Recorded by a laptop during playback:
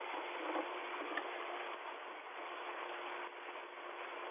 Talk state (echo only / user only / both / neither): neither